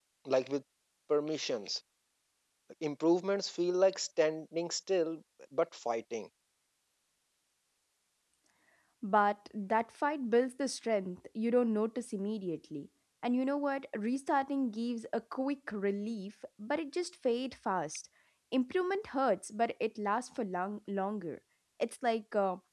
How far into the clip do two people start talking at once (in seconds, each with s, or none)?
none